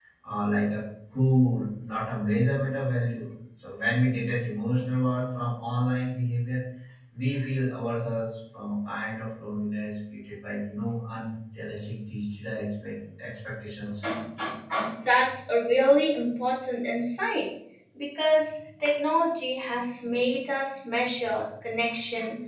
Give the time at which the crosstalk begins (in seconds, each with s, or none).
none